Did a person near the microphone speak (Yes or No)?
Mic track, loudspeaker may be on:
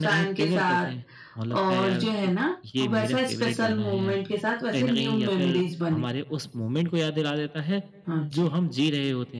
Yes